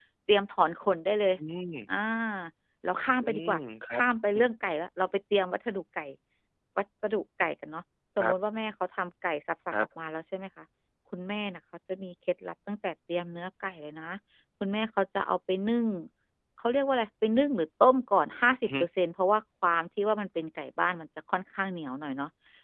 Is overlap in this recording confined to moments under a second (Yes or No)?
Yes